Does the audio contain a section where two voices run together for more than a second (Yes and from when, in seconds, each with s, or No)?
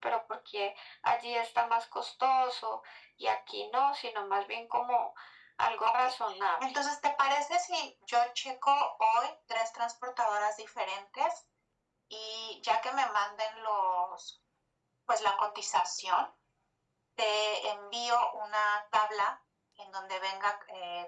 No